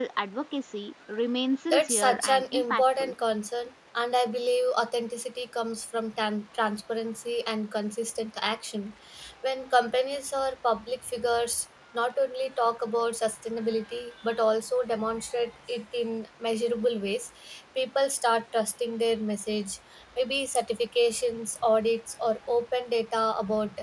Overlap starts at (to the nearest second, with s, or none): 2 s